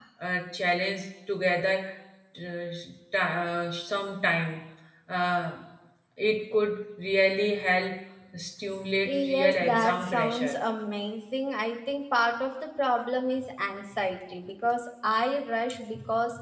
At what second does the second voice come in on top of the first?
9.0 s

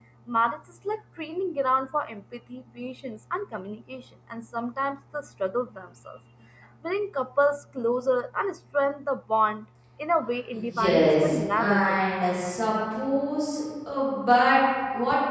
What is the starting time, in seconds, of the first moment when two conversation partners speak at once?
10.5 s

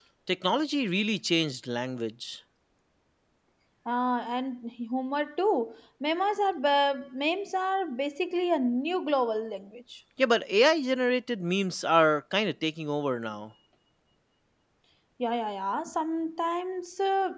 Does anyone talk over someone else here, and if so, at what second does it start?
none

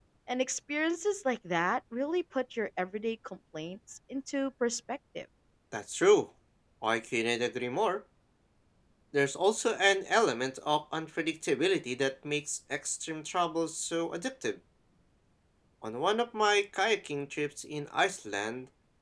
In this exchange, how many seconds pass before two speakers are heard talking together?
none

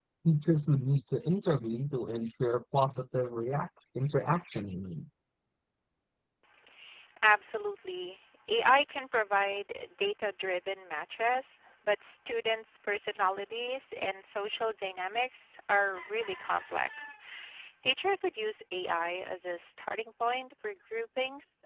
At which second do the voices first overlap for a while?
none

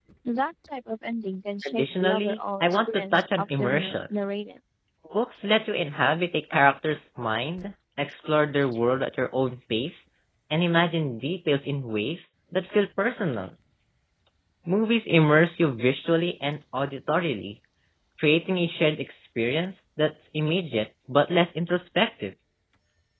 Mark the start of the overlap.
1.6 s

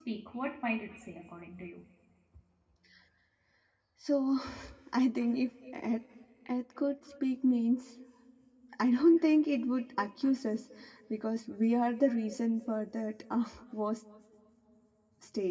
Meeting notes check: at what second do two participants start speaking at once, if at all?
none

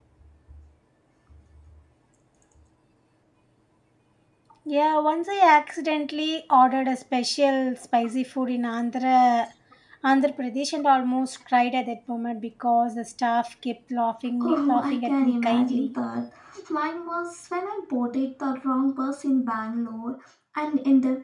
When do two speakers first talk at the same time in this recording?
14.4 s

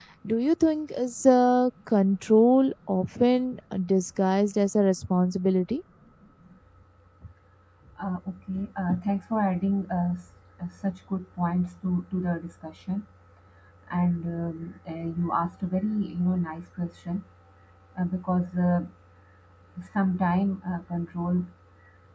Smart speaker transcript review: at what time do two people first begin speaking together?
none

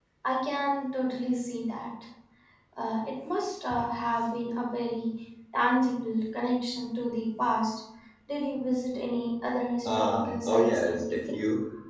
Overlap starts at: 9.8 s

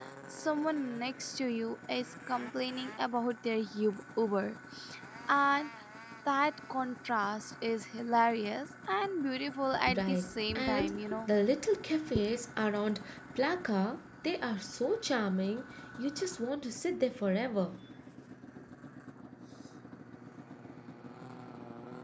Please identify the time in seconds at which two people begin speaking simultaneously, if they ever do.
9.7 s

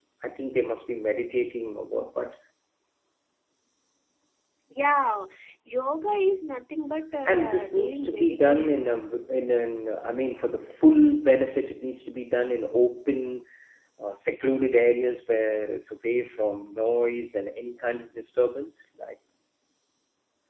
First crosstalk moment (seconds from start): 7.2 s

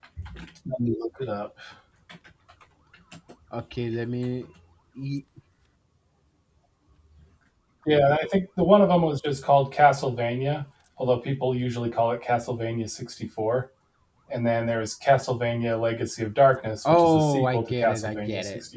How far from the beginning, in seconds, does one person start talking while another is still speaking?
16.9 s

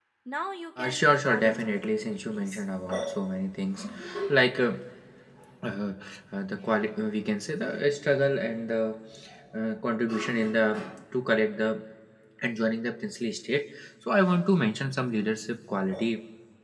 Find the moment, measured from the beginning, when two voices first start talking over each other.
0.8 s

